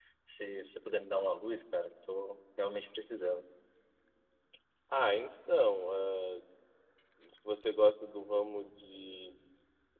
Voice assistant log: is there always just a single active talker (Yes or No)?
Yes